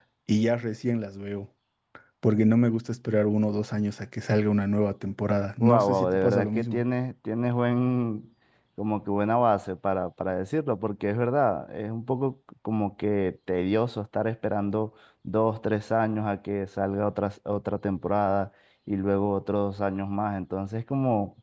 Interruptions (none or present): present